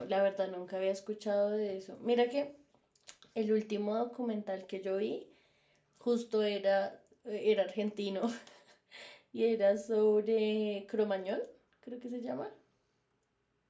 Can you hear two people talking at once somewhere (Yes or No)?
No